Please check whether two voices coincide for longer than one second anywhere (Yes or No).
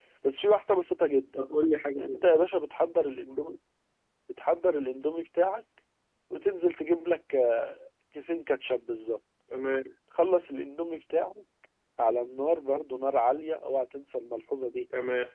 No